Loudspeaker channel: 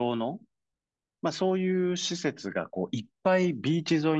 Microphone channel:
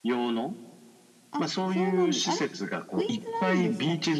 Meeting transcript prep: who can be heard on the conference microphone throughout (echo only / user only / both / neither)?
both